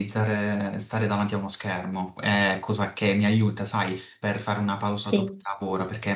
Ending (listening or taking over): listening